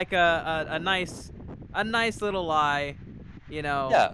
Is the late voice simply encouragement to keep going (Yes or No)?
No